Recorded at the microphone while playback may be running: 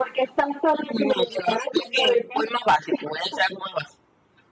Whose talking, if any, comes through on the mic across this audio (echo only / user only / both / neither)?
echo only